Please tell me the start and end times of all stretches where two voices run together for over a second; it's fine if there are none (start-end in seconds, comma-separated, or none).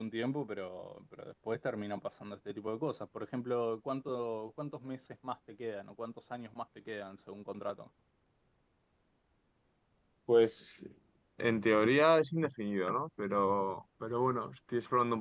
none